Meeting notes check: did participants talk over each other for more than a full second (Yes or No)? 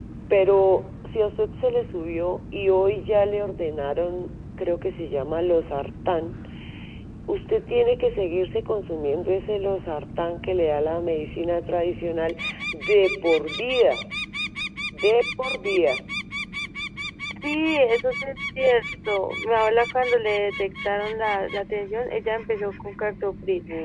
No